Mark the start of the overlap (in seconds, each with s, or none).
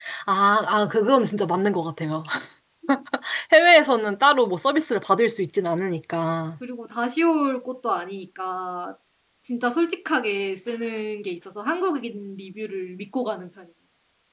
none